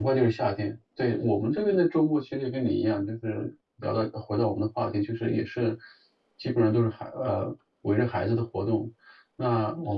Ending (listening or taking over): listening